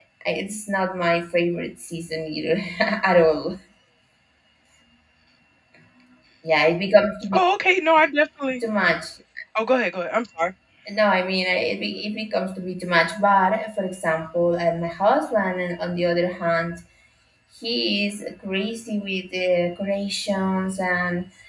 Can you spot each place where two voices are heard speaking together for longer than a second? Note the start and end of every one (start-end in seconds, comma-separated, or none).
none